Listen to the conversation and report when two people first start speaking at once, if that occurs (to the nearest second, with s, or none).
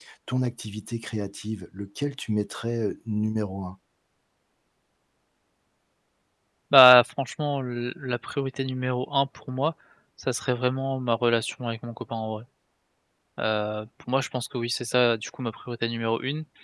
none